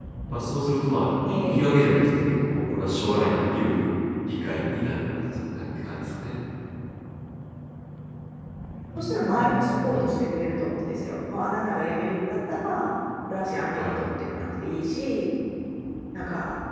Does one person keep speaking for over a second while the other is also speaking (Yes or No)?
No